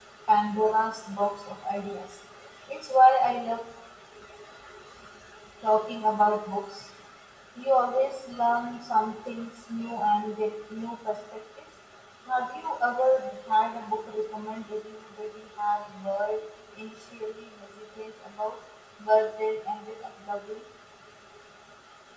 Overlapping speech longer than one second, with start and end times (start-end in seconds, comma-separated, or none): none